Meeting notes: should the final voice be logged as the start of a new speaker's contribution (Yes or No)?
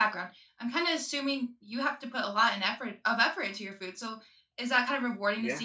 No